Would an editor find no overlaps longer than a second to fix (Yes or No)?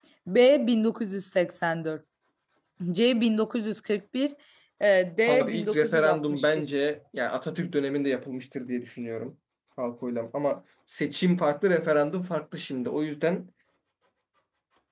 No